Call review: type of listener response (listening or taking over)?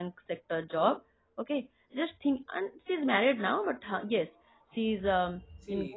taking over